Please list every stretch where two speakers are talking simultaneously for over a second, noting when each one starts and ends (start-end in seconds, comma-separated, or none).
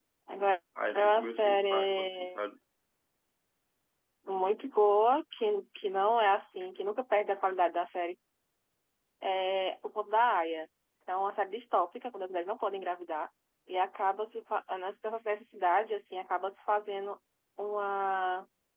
0.9-2.4